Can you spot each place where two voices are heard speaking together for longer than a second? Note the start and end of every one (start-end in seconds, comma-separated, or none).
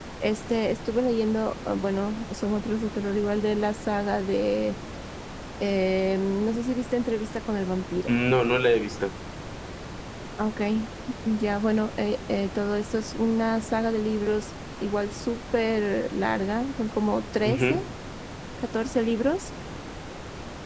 none